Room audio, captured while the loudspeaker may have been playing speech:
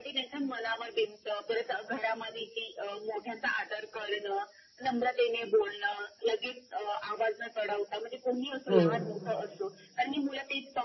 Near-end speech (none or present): present